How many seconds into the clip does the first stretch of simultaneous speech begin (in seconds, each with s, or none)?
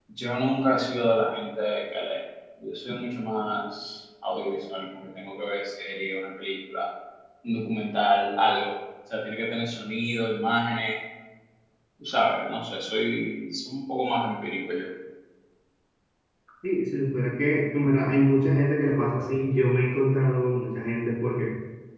none